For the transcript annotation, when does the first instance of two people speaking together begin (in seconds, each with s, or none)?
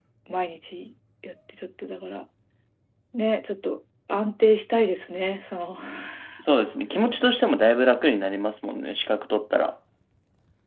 none